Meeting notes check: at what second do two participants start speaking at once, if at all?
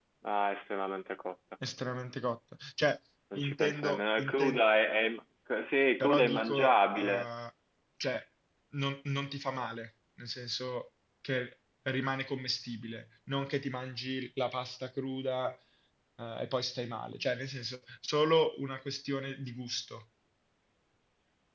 3.4 s

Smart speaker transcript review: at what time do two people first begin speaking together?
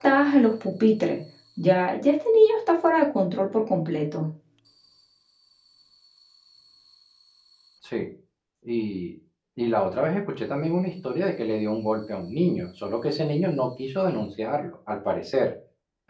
none

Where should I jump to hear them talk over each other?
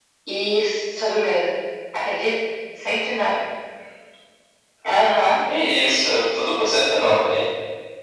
none

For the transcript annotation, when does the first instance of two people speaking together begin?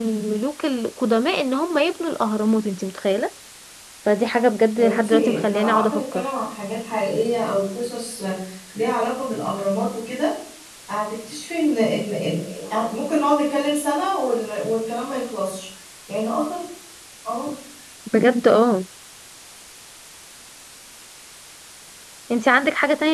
4.8 s

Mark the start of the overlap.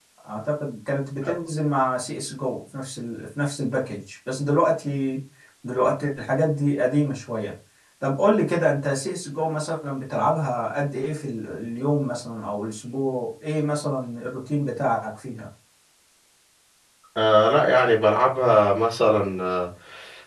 none

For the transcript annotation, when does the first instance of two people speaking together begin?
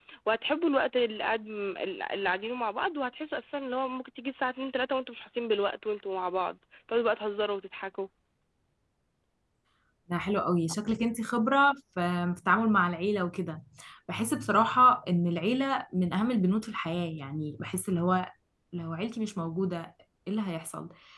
none

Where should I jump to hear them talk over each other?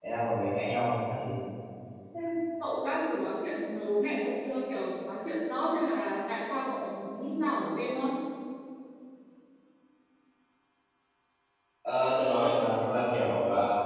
none

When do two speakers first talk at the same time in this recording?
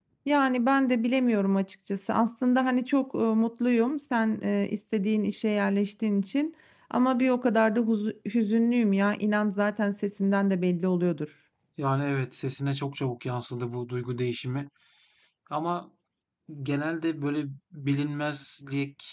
none

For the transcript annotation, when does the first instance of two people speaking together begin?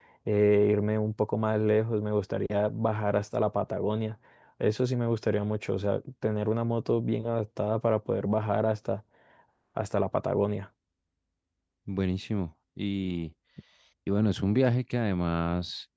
none

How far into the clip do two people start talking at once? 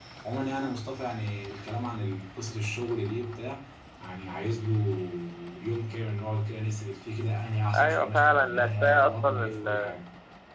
7.7 s

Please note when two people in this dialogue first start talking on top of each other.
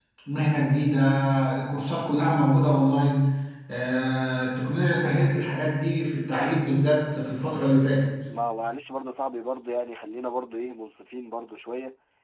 none

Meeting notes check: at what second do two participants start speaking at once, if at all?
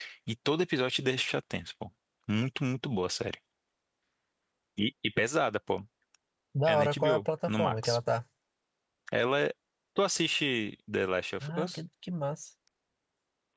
6.7 s

